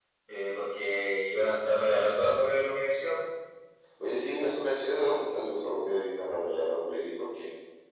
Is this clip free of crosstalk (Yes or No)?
Yes